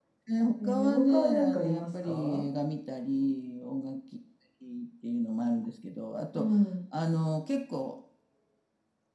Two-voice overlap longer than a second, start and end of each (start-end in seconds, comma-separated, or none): 0.6-2.4